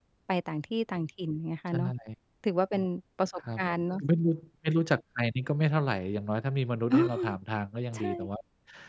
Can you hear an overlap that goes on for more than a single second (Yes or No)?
No